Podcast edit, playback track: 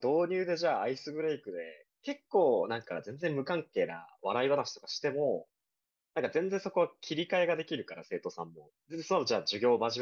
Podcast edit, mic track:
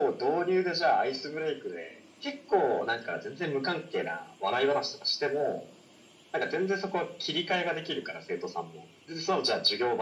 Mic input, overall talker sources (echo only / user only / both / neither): echo only